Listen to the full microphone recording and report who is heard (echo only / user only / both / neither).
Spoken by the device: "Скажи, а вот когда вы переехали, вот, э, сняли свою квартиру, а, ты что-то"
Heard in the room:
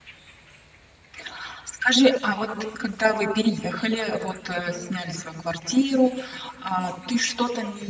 echo only